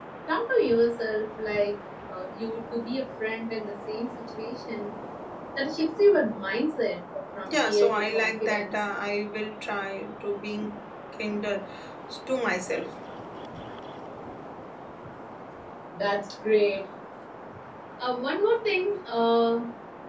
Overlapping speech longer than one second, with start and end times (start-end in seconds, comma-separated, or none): 7.4-8.8